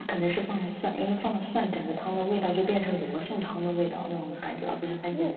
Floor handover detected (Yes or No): Yes